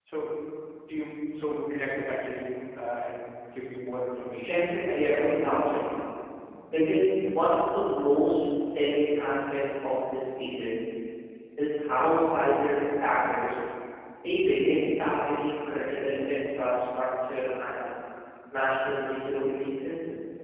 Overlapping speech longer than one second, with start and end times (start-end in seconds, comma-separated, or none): 4.4-5.9